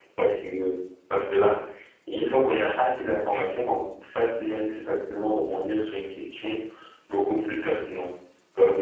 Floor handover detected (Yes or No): No